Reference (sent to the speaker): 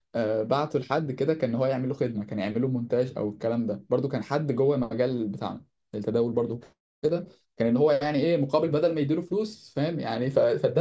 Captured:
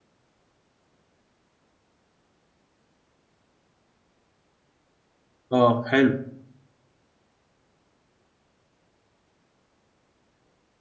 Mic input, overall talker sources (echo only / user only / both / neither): user only